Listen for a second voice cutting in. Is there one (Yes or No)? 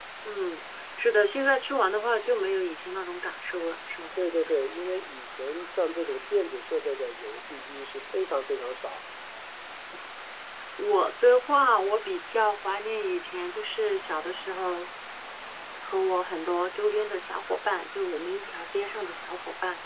No